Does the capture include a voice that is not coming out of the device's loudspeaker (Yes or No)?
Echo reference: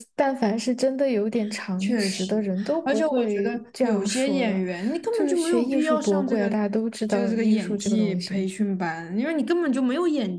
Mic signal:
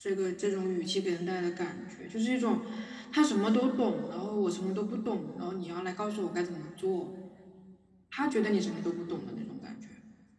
Yes